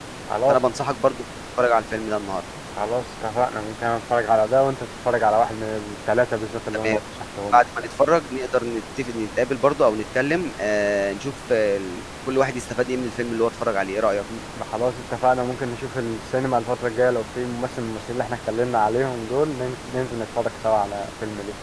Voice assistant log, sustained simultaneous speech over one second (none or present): none